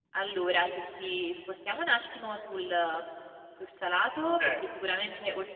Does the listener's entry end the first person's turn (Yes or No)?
No